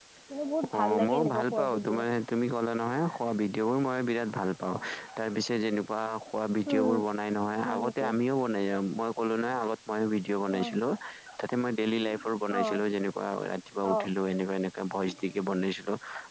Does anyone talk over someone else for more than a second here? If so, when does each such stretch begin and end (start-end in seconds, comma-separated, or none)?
0.8-2.0